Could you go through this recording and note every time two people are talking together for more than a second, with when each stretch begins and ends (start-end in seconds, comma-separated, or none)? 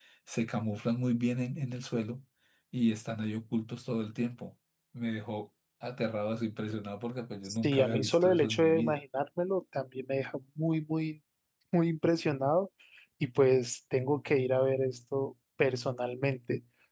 7.5-9.0